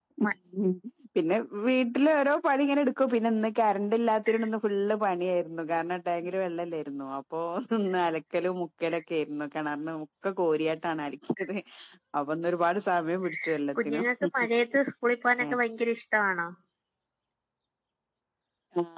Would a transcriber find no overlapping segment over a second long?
Yes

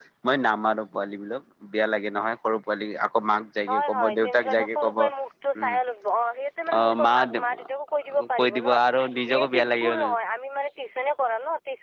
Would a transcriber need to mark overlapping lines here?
Yes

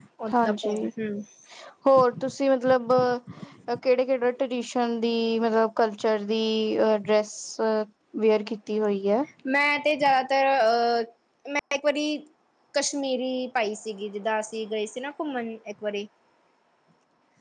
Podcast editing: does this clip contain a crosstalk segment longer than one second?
No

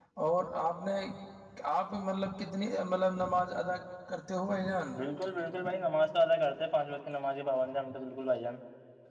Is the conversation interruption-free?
Yes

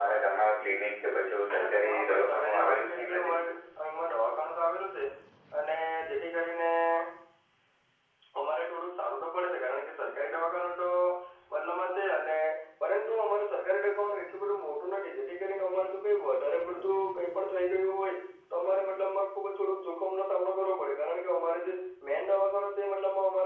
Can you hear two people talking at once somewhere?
Yes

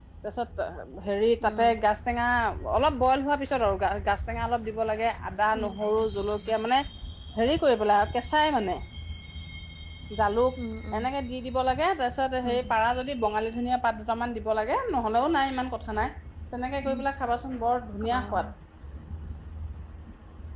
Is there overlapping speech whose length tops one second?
No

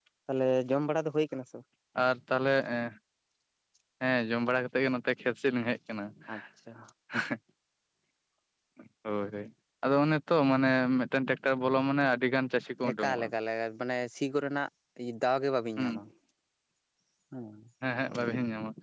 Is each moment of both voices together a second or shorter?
Yes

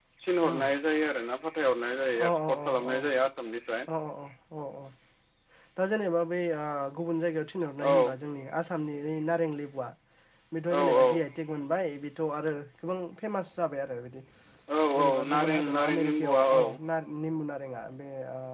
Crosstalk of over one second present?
Yes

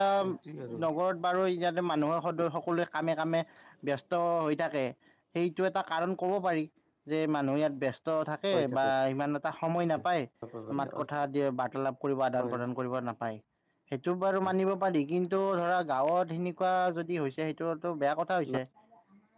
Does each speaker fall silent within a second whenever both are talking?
Yes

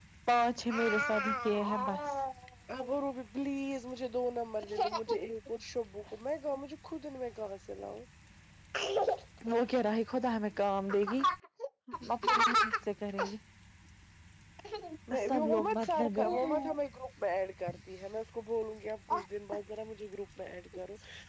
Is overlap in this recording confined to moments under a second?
No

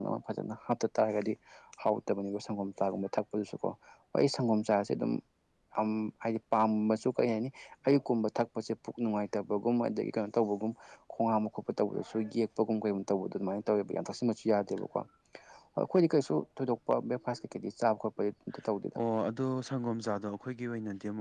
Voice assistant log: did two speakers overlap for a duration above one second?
No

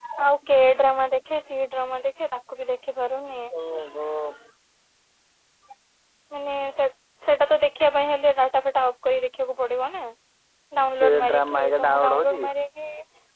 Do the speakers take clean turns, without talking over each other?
No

